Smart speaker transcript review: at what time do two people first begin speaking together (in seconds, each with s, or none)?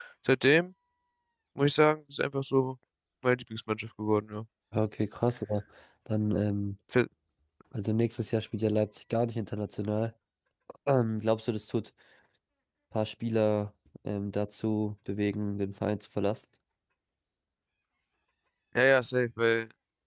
none